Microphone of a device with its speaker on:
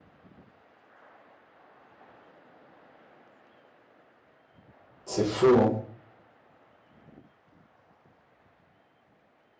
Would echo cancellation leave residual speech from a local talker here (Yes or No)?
Yes